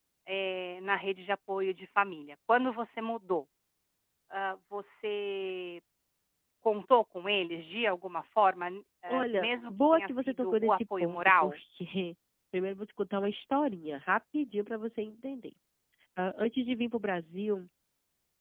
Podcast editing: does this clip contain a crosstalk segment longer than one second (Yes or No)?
Yes